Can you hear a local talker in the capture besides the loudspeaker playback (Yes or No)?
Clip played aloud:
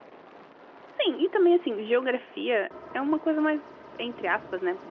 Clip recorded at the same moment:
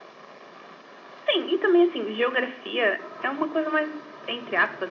No